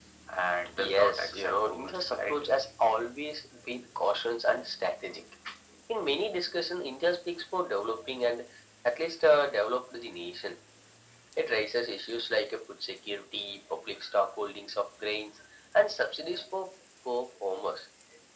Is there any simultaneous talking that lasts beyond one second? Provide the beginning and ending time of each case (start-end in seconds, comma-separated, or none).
0.8-2.6